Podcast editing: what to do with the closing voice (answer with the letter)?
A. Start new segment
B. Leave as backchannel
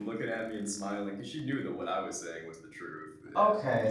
A